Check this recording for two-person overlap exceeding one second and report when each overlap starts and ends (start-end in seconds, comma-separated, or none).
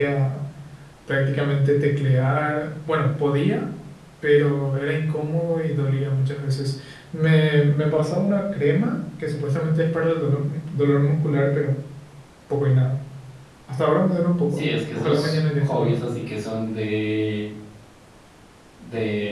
14.5-16.0